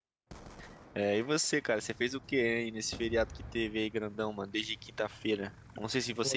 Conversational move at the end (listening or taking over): listening